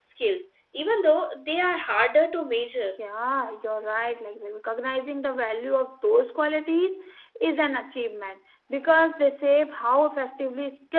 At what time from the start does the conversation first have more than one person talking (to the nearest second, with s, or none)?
none